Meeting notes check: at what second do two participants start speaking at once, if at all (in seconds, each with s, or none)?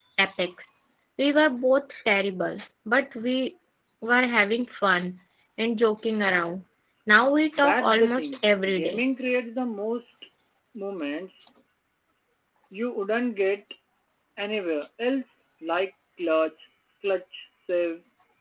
7.6 s